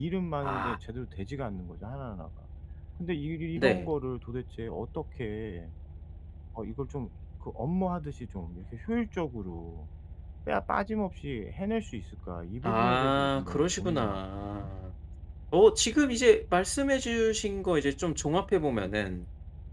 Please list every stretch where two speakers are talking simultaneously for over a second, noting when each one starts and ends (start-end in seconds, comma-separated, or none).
12.6-14.7